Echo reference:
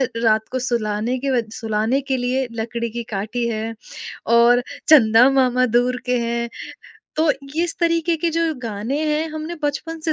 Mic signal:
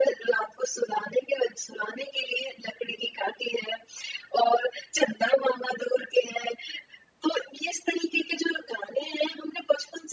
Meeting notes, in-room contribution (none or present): none